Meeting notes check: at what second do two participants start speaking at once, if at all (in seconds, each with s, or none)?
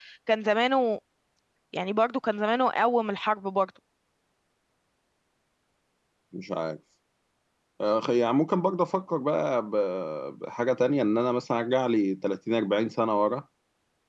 none